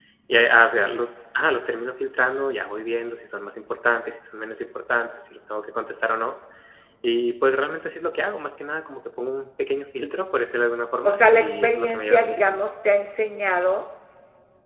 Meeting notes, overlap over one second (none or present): present